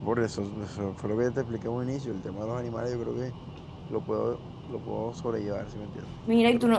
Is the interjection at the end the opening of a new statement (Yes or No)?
Yes